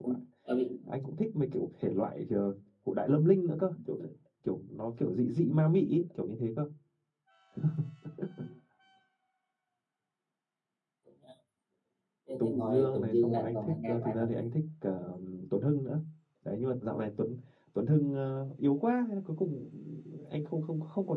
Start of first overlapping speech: 12 s

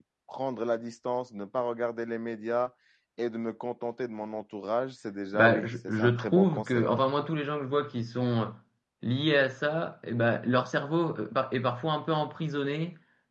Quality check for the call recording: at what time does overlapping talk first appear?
5 s

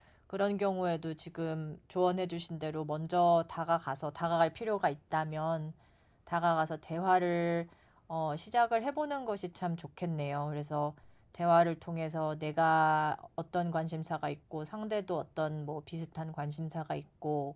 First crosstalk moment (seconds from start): none

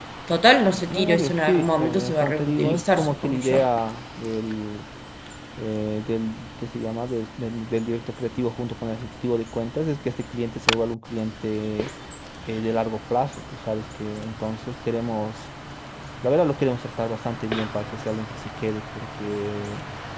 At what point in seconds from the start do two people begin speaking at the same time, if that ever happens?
1 s

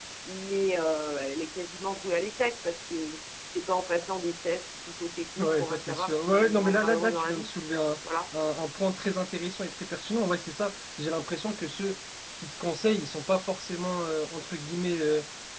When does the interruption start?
5 s

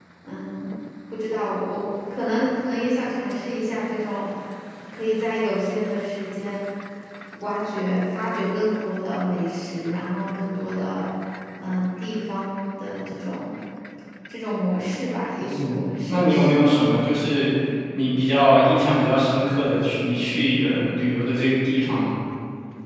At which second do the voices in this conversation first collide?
15 s

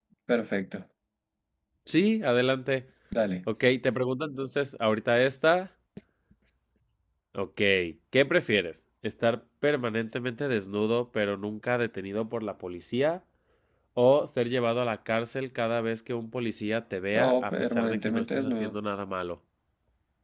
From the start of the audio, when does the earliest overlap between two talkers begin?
17 s

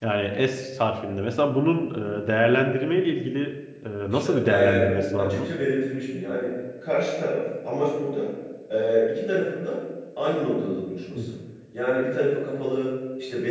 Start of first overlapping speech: 4 s

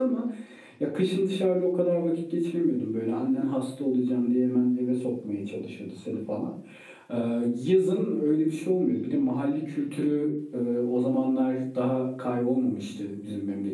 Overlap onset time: none

